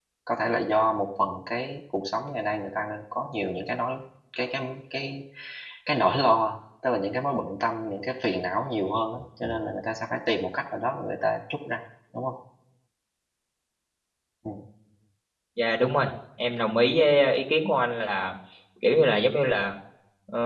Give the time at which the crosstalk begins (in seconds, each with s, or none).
none